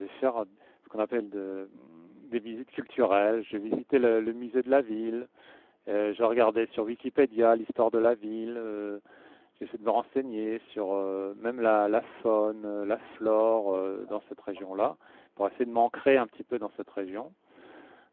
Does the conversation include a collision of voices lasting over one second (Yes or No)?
No